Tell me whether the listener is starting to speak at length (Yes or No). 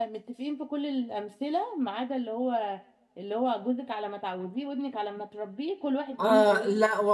Yes